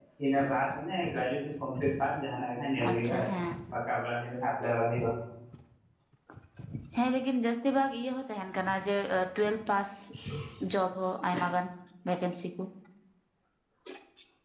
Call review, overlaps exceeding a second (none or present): none